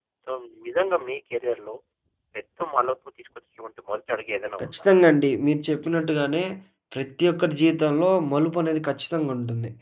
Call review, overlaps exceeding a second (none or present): none